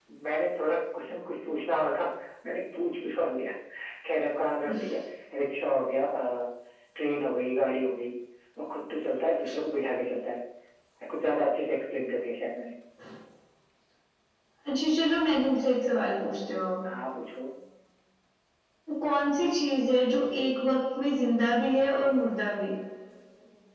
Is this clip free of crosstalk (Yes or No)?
Yes